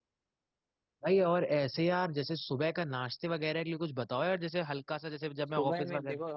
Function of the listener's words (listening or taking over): taking over